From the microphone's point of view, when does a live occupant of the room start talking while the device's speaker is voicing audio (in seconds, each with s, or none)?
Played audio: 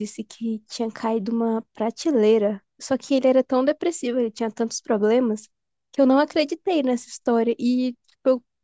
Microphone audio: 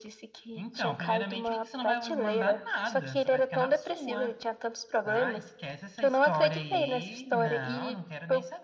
0.6 s